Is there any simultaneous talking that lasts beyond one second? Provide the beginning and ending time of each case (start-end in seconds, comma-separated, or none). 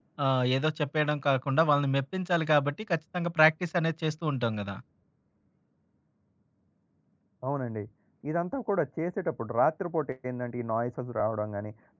none